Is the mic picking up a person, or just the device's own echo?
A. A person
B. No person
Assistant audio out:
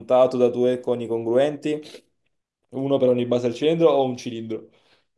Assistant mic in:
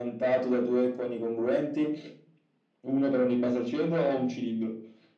B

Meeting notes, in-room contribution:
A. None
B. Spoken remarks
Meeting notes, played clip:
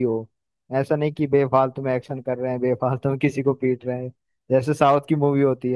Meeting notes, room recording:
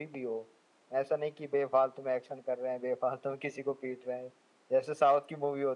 A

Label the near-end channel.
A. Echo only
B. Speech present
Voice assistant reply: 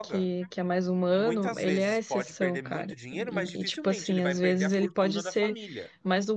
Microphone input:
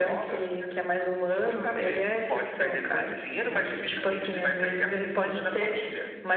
A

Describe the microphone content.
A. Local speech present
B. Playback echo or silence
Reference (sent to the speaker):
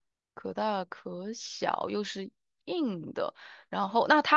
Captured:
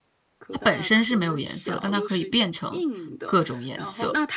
A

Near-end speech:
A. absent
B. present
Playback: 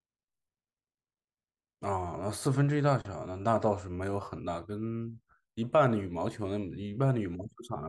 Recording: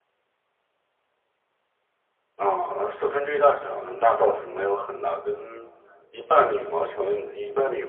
A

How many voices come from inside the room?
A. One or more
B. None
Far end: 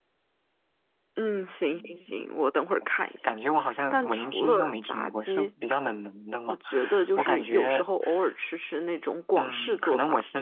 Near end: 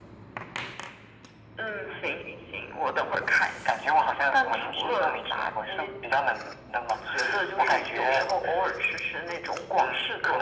B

